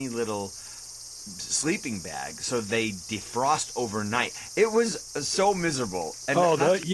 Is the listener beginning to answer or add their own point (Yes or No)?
Yes